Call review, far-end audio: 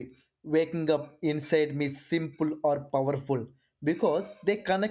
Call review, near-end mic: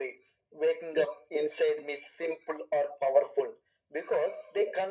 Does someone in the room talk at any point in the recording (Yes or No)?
No